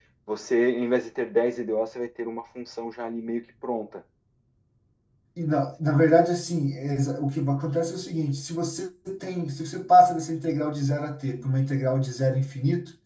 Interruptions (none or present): none